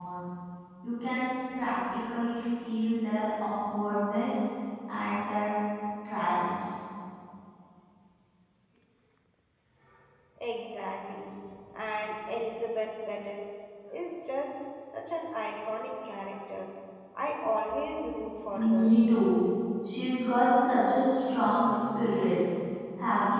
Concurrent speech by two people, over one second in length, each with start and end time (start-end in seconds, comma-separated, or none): none